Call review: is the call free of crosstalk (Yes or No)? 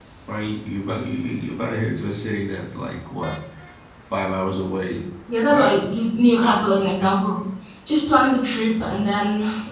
No